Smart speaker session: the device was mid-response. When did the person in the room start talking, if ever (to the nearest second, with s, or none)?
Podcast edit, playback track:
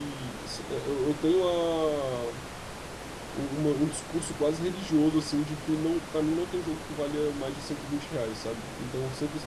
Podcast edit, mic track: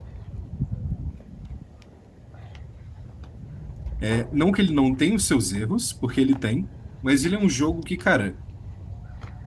4 s